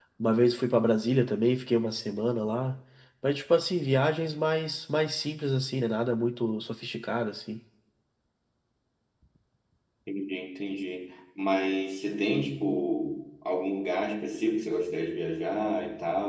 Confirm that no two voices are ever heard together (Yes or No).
Yes